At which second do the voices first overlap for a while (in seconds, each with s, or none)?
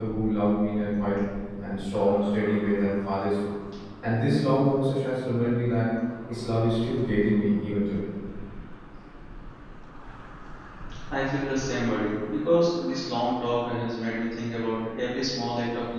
none